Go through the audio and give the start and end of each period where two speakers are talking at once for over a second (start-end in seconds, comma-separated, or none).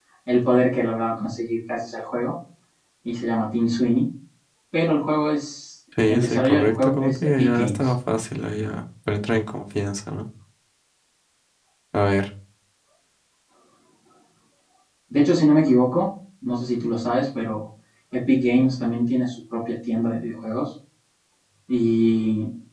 6.1-7.9